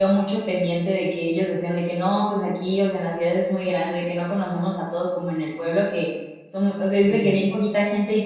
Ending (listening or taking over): listening